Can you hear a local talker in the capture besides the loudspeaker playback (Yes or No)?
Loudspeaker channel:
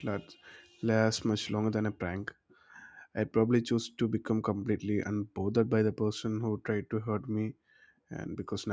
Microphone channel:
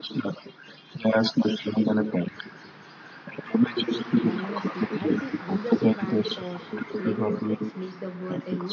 Yes